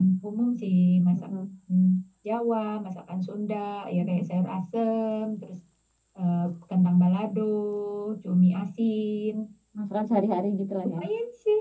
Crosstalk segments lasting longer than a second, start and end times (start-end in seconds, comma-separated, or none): none